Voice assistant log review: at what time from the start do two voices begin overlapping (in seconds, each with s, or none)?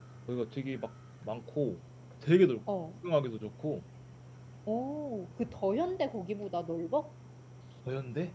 none